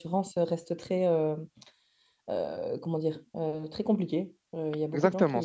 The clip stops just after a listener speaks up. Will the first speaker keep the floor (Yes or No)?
No